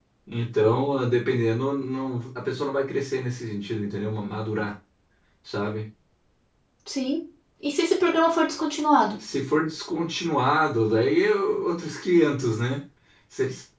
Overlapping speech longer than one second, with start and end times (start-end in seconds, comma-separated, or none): none